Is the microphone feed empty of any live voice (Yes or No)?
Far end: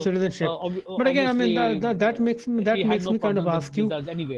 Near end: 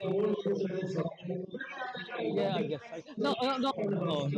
No